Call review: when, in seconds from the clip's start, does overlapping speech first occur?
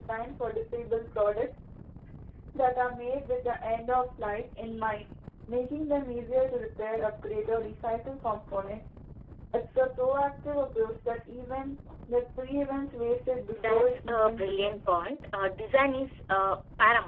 14 s

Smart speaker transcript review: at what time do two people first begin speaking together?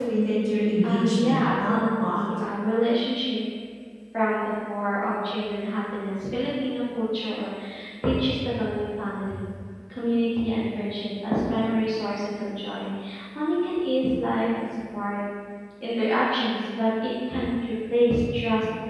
1 s

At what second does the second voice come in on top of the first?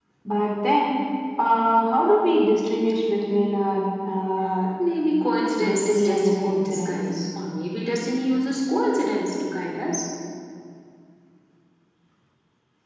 6 s

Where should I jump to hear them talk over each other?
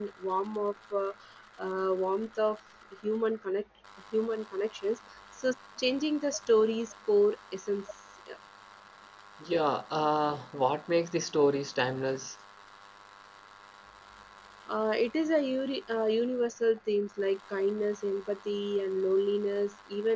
none

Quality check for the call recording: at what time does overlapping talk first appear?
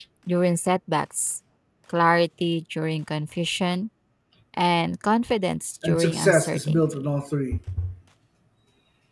6 s

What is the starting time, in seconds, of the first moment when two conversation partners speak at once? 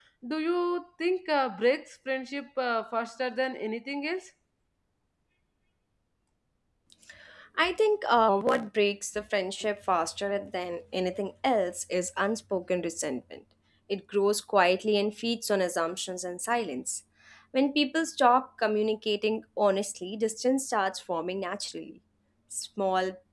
none

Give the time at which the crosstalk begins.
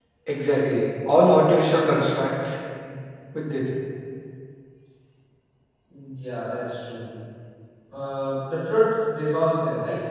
none

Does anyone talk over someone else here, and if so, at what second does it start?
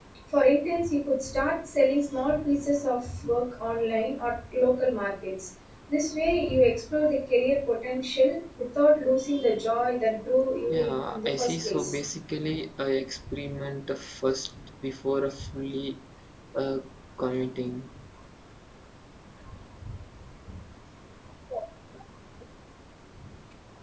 11 s

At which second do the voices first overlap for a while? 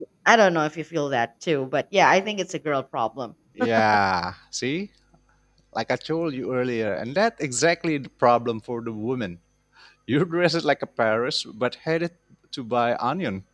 none

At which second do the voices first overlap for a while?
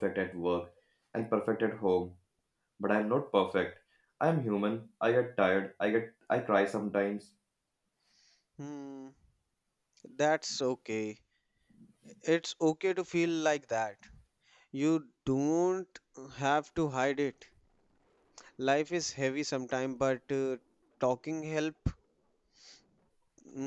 none

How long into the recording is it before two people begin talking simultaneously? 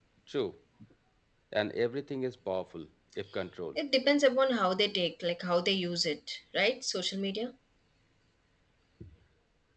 none

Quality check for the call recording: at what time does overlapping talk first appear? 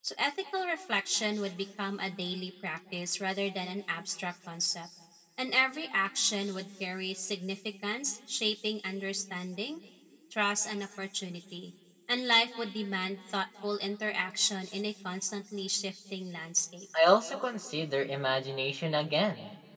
none

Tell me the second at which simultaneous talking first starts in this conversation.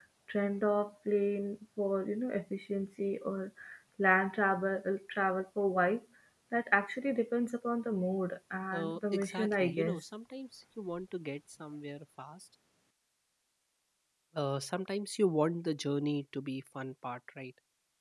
9 s

